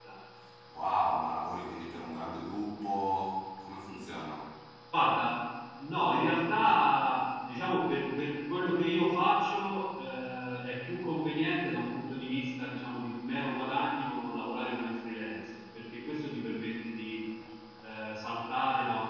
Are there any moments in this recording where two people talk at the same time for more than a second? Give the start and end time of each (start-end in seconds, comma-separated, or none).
none